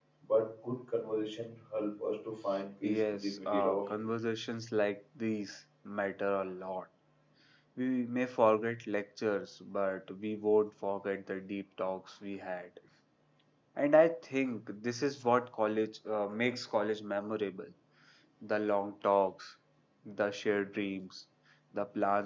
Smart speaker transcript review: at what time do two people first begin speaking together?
2.8 s

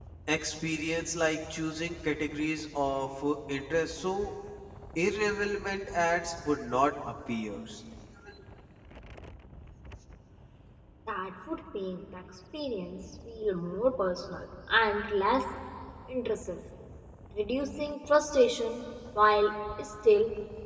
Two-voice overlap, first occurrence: none

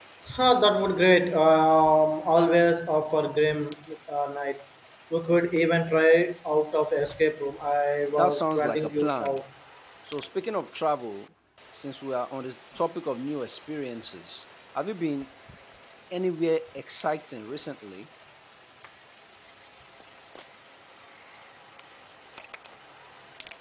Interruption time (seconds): 8.2 s

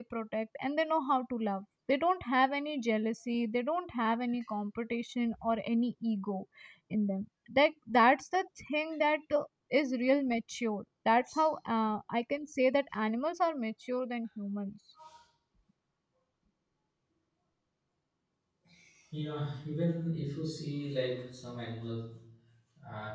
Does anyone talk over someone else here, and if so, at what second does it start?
none

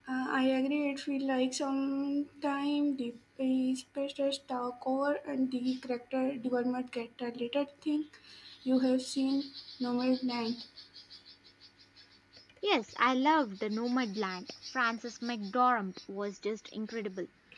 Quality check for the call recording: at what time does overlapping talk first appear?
none

